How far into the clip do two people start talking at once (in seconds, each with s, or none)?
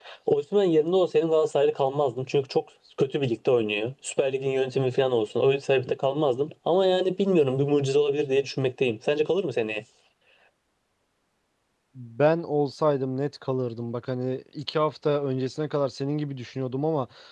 none